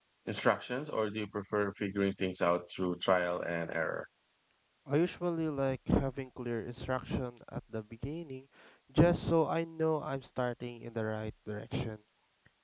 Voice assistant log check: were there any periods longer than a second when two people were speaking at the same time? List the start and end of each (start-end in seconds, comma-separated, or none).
none